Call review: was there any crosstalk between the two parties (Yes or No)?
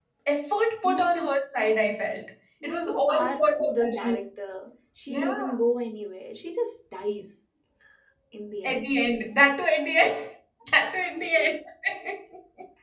Yes